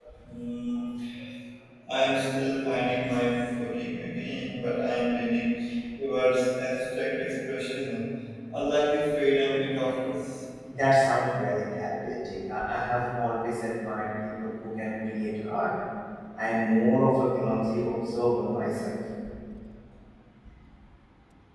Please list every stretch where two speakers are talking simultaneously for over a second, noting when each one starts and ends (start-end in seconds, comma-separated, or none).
none